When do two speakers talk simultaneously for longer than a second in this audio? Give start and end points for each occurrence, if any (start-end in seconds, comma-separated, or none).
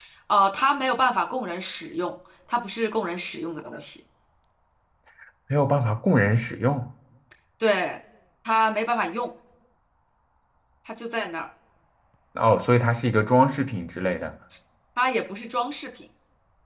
none